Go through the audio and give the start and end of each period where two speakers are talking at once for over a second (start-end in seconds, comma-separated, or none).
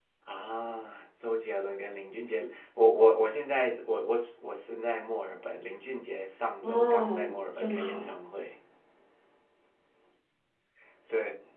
6.6-8.1